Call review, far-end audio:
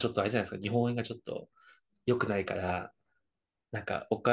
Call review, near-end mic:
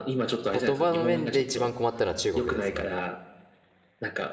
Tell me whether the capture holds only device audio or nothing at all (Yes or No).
No